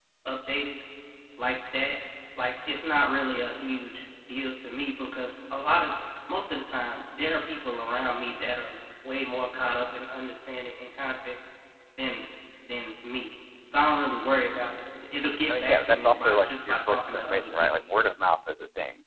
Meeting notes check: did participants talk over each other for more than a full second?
Yes, from 15.5 s

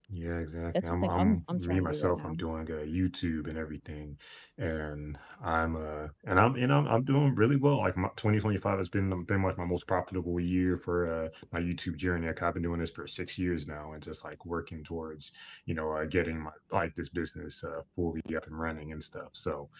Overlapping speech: Yes, from 0.8 s

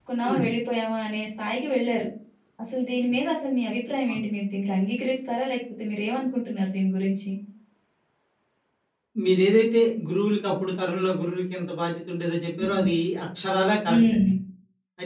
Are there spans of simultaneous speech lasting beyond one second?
No

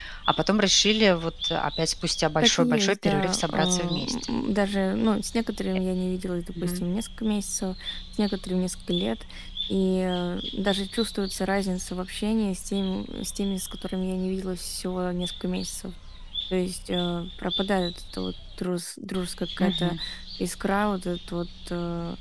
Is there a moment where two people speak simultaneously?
Yes, from 2.4 s

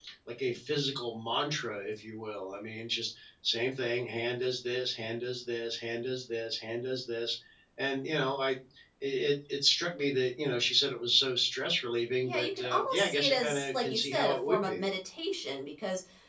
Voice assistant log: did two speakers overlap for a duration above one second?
Yes, from 12.2 s

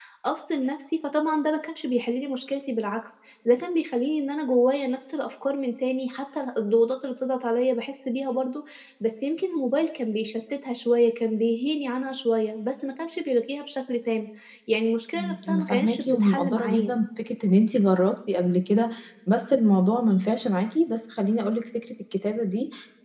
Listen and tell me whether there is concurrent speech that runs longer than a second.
Yes, from 15.1 s

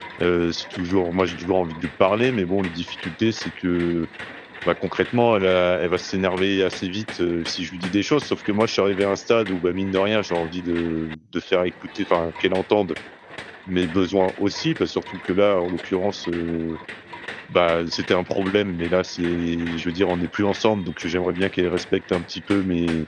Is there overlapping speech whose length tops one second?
No

